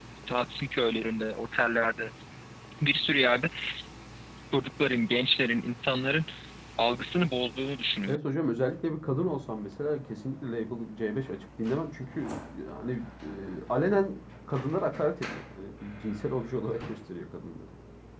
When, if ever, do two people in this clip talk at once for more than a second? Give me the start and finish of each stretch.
none

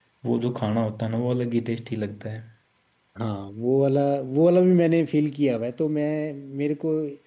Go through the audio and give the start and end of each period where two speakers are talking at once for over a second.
none

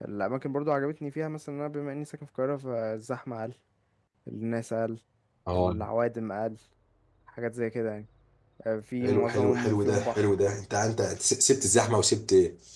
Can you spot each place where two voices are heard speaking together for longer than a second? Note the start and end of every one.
9.0-10.2

